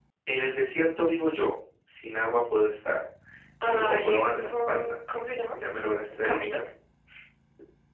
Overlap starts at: 3.6 s

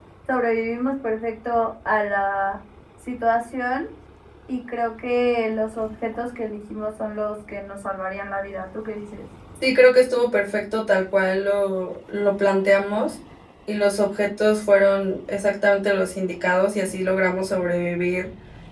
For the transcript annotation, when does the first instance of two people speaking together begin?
none

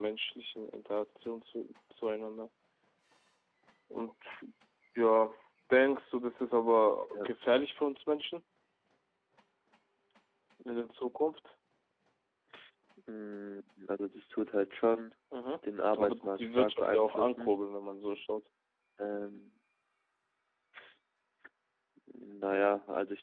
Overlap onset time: 16.0 s

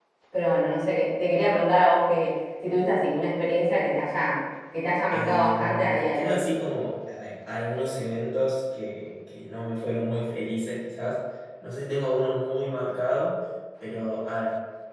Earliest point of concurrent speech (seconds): 5.1 s

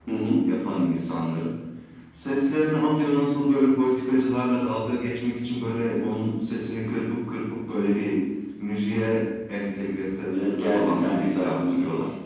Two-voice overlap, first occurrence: 10.3 s

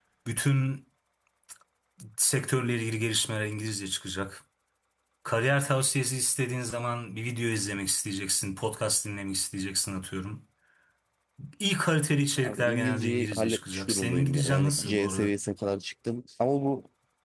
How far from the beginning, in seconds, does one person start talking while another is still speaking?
12.4 s

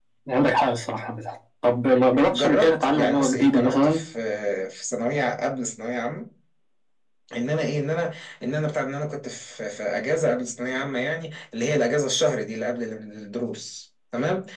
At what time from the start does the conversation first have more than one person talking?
2.1 s

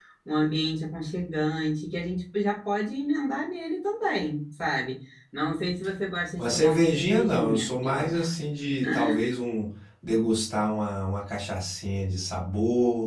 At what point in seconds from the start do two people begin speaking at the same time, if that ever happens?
6.4 s

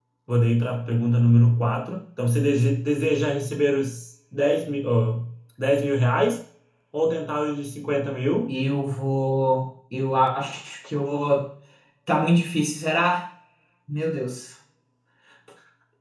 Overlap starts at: none

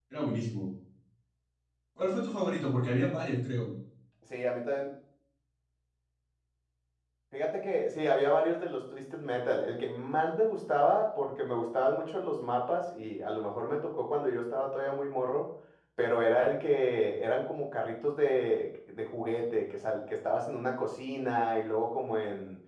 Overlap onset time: none

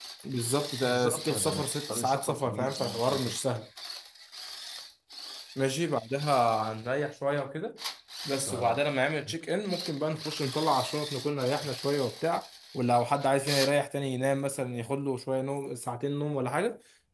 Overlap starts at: 0.8 s

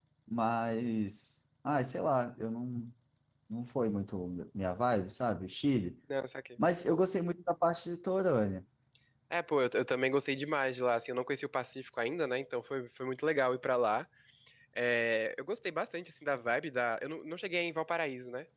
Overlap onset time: none

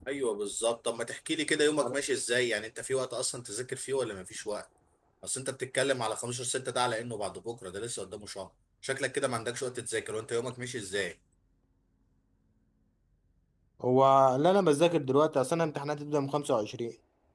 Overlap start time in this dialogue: none

